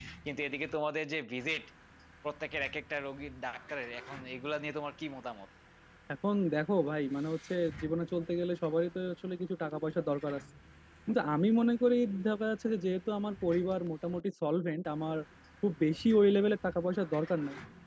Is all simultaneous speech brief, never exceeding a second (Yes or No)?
Yes